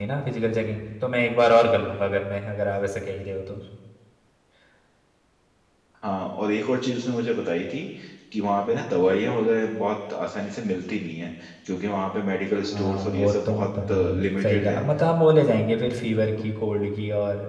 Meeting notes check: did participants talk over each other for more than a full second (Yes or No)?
Yes